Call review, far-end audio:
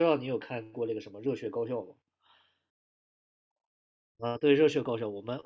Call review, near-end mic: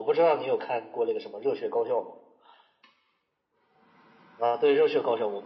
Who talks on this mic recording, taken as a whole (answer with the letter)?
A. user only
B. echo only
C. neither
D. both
B